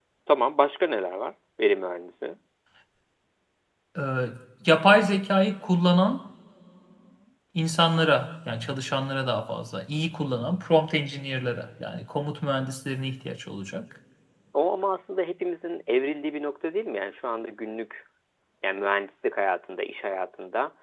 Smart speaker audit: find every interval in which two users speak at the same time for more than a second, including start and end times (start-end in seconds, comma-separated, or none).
none